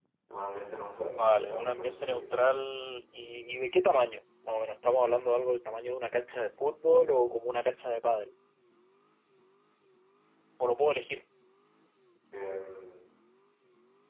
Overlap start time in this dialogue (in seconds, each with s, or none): 1.1 s